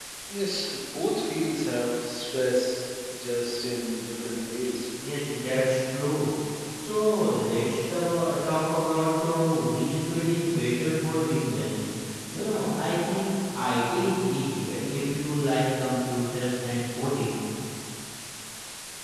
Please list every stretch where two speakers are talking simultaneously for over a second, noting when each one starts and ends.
none

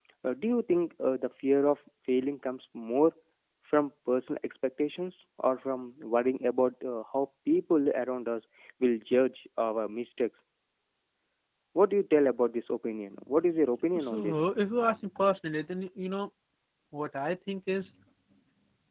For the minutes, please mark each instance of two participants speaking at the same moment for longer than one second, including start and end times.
none

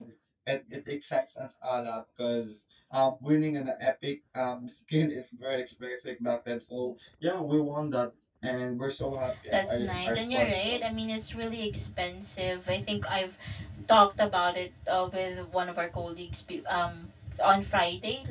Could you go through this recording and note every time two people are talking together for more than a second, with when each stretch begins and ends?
9.5-10.8

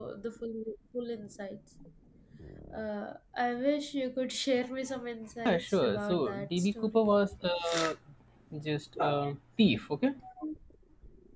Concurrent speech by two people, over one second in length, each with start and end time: 5.5-7.0

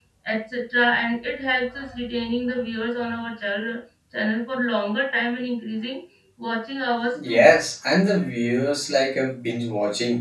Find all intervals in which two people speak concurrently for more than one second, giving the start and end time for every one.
none

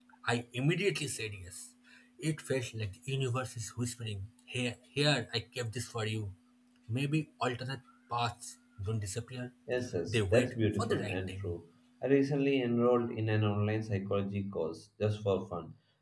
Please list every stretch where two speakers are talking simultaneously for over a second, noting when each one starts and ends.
10.1-11.6

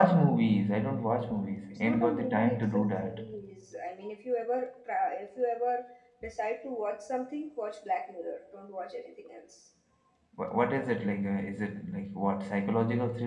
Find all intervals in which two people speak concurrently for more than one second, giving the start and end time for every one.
1.7-3.2

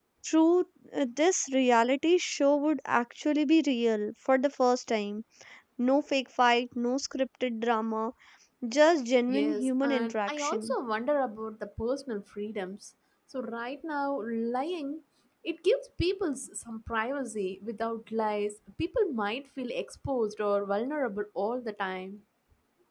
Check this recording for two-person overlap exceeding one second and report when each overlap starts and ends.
9.3-10.7

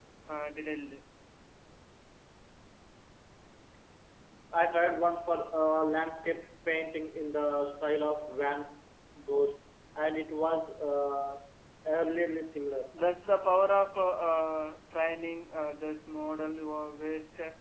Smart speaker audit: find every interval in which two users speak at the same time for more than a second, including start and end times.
none

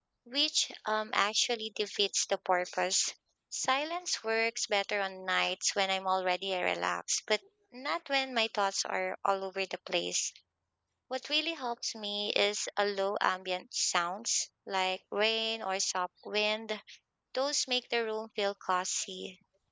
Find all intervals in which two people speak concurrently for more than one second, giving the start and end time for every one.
none

